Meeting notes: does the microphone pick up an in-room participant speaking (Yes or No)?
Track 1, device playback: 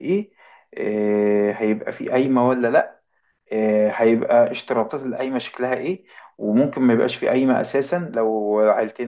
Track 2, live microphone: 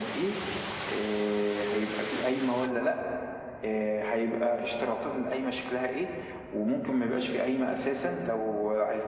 No